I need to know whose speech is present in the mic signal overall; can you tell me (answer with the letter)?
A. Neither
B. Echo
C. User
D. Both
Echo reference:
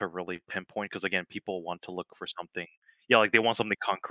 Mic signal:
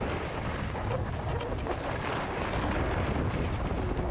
A